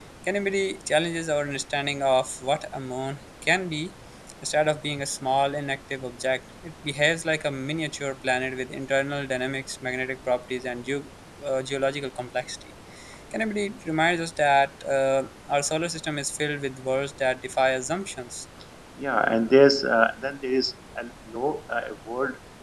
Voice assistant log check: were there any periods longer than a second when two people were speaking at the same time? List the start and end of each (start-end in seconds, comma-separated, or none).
none